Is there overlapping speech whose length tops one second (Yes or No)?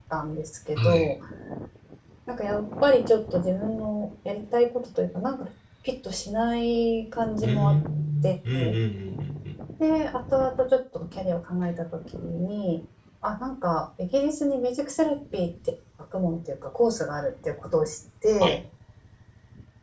No